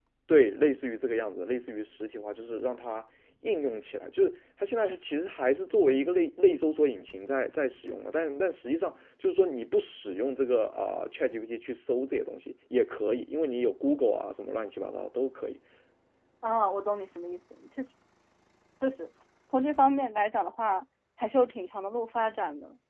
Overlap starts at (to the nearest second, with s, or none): none